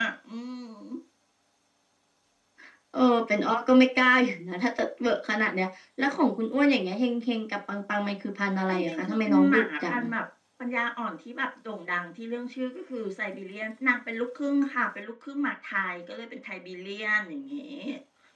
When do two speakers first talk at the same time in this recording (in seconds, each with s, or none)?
8.7 s